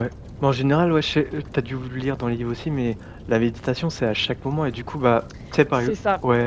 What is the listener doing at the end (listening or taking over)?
listening